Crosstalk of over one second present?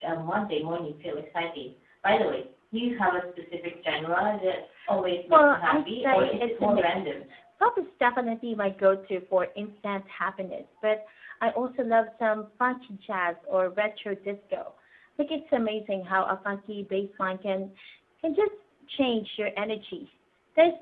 Yes, from 5.3 s

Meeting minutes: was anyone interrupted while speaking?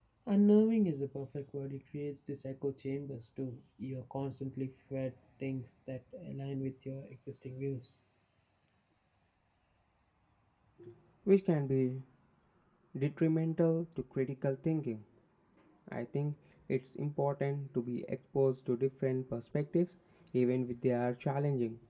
No

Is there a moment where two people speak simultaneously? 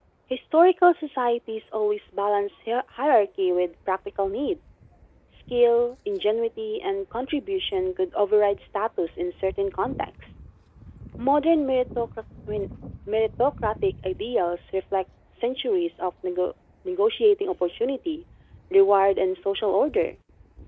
No

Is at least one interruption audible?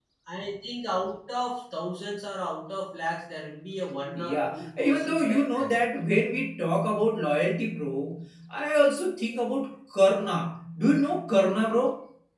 Yes, from 4.2 s

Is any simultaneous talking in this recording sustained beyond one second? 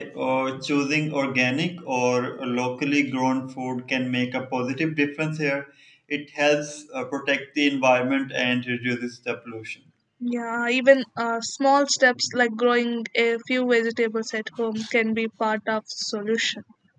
No

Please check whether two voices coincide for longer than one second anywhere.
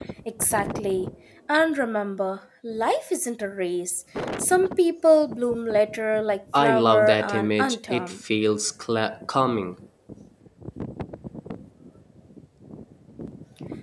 Yes, from 6.5 s

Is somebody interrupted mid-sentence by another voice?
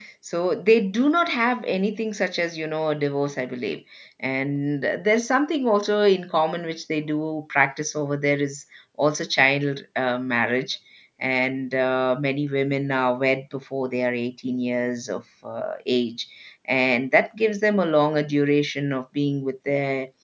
No

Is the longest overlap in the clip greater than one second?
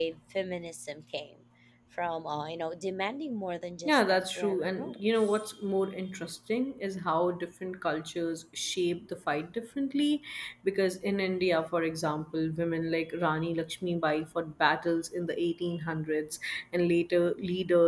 Yes, from 3.8 s

